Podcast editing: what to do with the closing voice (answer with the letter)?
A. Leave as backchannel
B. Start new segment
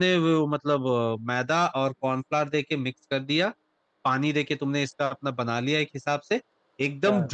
A